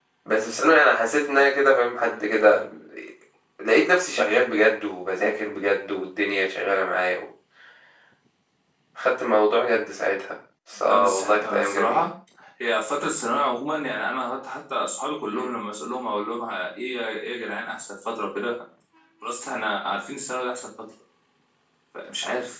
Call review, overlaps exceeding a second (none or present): present